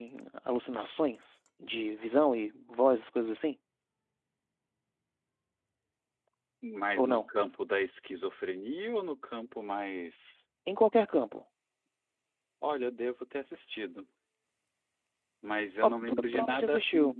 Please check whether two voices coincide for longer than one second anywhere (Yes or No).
Yes